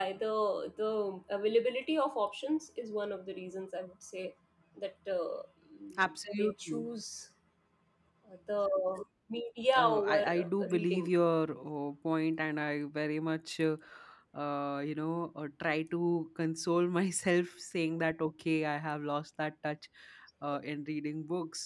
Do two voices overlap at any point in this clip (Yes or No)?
Yes